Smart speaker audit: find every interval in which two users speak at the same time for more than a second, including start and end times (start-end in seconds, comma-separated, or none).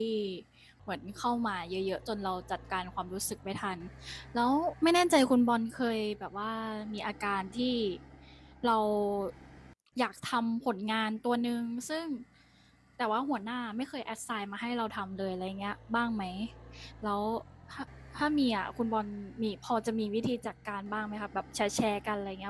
none